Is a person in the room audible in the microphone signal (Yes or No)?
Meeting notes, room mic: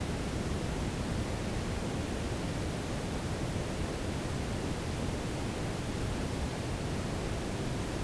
No